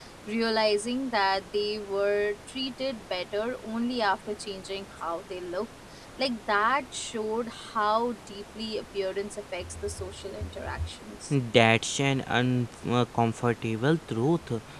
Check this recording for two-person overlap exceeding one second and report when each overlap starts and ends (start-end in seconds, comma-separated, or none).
none